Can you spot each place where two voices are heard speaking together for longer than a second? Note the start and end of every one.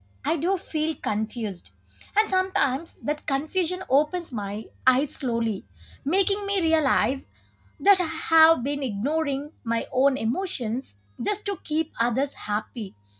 none

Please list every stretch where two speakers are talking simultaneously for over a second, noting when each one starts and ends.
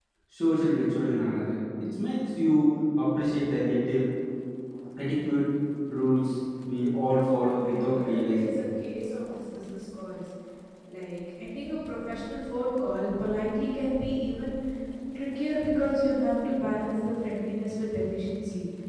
7.1-8.6

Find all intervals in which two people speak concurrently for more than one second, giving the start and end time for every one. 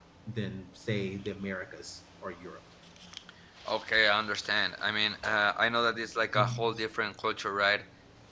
none

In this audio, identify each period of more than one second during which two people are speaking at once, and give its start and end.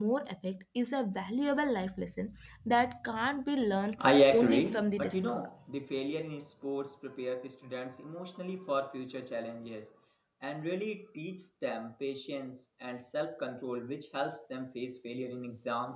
4.1-5.3

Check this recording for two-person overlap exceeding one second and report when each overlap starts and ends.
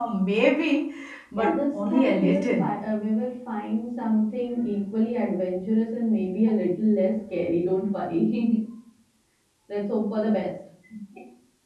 1.4-2.7

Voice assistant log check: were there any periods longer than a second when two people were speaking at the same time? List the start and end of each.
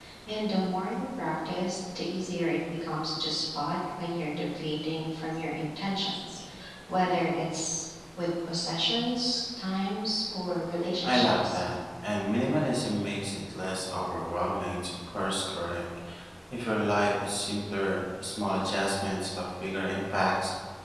none

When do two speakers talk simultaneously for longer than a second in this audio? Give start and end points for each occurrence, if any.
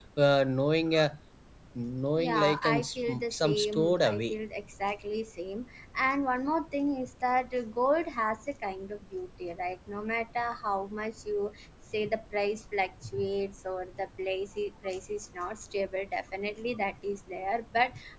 2.2-4.3

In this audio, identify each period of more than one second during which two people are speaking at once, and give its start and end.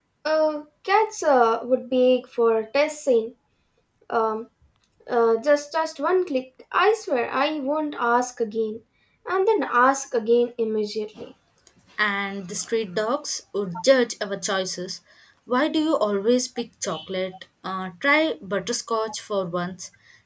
none

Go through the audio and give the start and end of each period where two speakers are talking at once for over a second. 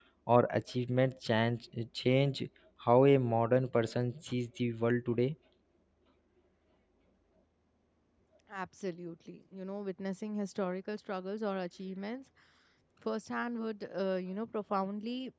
none

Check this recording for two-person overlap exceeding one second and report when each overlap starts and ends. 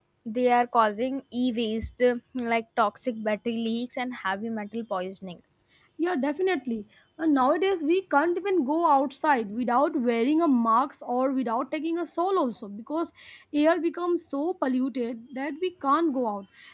none

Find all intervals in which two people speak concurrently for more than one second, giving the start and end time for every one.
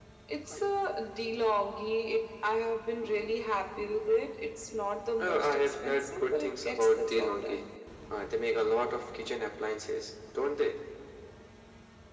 5.2-7.6

